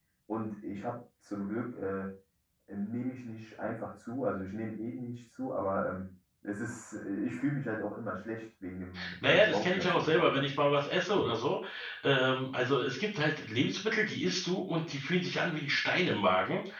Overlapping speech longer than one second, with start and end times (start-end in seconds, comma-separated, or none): 9.2-10.5